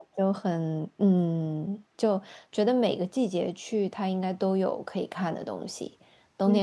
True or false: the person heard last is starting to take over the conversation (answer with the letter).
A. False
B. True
A